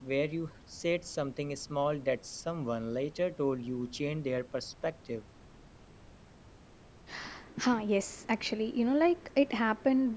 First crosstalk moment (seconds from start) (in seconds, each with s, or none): none